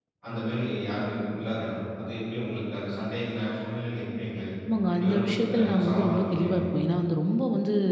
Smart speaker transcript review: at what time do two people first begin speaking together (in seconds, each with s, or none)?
4.9 s